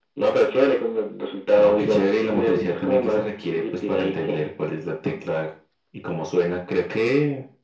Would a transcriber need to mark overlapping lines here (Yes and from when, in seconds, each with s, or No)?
Yes, from 1.6 s